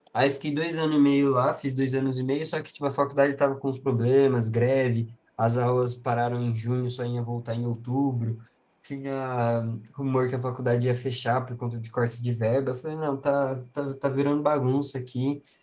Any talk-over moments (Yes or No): No